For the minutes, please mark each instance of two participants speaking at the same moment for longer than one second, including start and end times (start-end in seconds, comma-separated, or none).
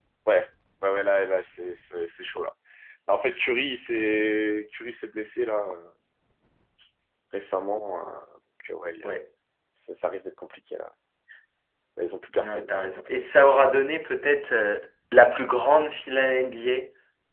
none